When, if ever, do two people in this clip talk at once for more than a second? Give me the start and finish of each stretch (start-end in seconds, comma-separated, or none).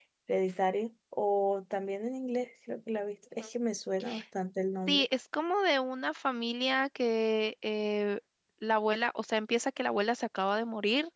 none